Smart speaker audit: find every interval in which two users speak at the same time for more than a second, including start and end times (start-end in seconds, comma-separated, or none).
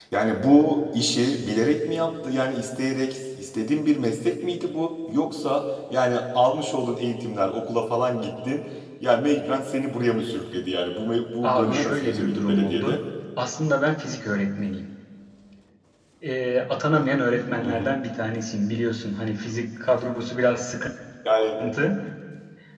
11.4-13.0